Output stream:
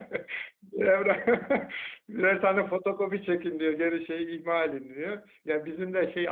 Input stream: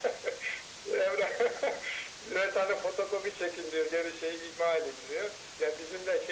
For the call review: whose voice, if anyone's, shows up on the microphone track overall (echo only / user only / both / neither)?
echo only